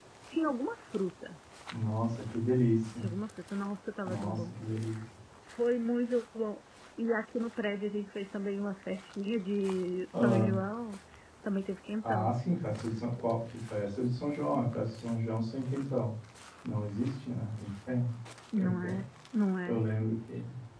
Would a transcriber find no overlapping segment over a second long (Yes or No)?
Yes